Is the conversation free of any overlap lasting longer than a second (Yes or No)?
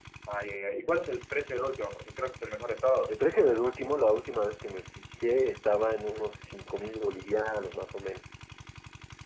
Yes